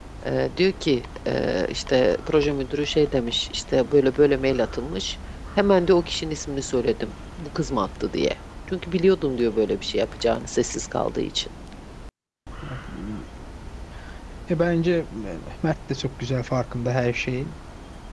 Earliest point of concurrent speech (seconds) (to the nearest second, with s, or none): none